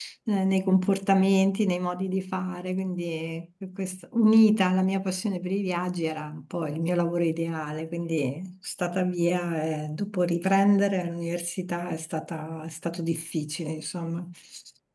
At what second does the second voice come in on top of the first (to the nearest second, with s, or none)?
none